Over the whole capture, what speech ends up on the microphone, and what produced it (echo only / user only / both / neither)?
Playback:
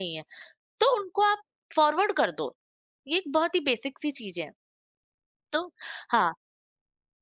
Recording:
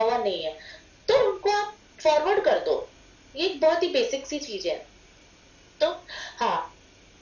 echo only